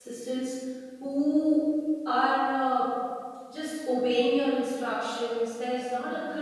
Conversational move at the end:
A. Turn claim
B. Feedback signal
B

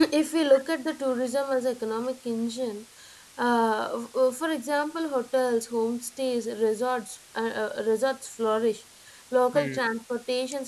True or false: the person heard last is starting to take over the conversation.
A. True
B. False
B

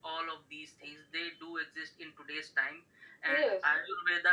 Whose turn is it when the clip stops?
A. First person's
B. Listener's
A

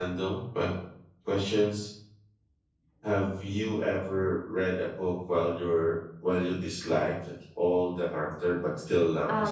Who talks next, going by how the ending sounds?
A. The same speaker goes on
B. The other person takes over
B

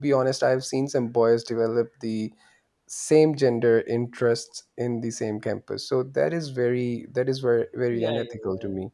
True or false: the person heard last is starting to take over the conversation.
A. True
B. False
A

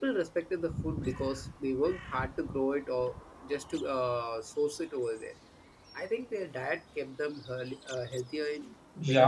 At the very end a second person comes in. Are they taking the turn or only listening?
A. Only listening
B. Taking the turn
B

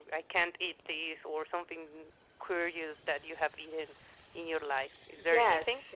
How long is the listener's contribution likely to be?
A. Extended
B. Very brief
A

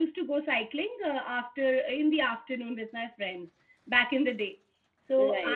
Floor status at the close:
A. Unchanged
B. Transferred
A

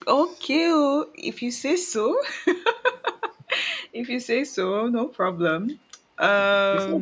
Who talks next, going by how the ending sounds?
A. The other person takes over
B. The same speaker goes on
A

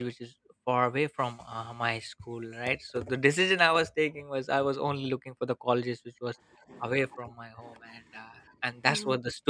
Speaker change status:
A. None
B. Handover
B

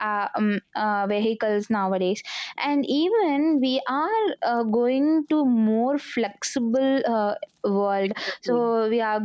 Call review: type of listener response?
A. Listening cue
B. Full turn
A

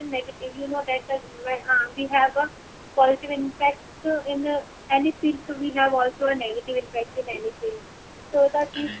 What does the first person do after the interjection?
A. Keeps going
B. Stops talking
A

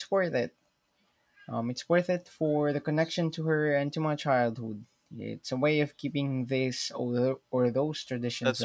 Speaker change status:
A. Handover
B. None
A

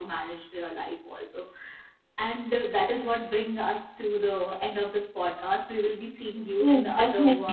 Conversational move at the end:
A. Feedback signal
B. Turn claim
B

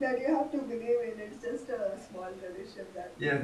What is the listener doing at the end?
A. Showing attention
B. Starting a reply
B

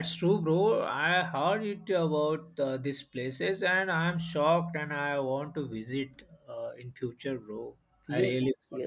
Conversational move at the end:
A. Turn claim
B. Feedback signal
A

